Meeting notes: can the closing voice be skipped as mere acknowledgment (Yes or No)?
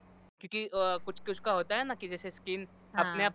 Yes